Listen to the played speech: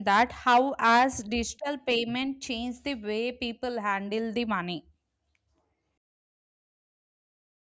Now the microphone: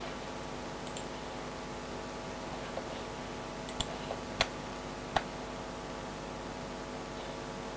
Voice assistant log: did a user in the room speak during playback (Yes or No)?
No